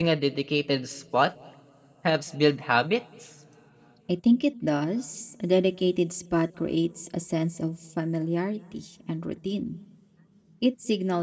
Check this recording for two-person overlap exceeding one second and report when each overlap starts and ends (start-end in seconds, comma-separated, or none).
none